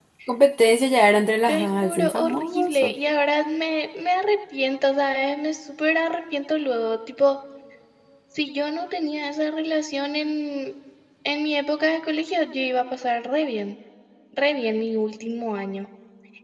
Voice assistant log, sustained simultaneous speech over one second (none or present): present